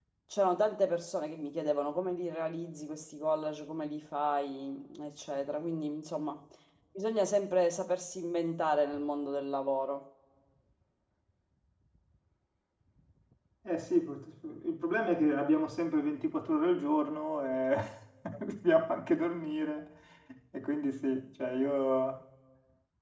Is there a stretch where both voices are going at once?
No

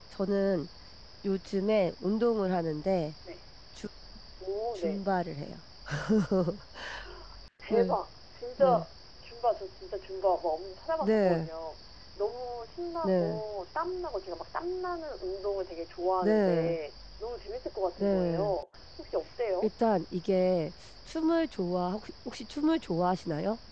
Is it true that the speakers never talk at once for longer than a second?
Yes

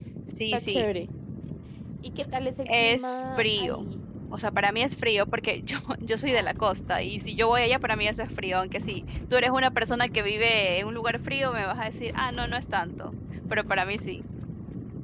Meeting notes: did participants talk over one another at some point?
Yes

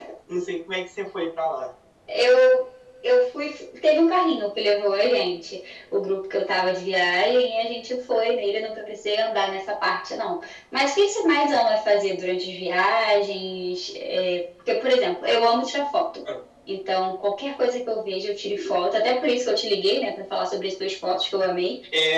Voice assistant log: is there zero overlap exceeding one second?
Yes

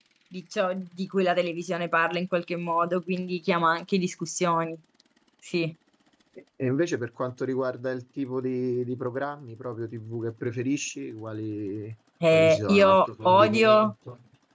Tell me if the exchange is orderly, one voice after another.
No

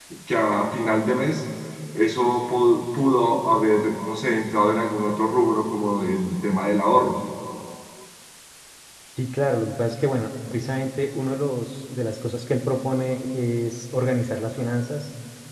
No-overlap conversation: Yes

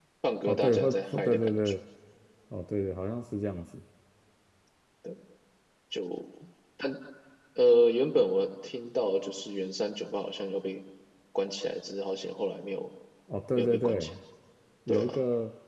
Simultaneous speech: Yes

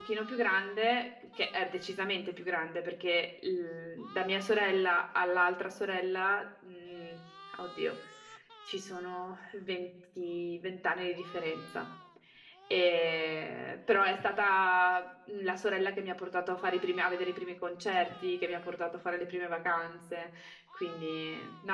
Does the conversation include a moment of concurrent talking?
No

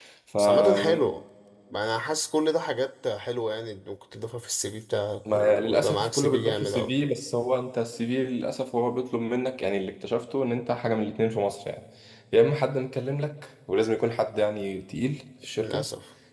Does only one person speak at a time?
No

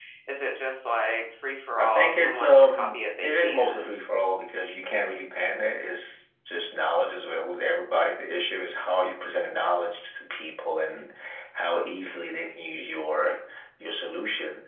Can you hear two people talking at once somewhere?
Yes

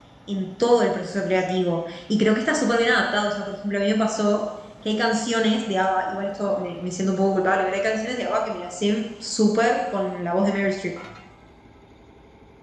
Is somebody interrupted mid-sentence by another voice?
No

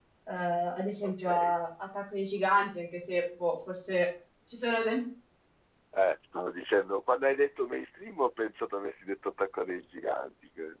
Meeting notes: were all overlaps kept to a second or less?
Yes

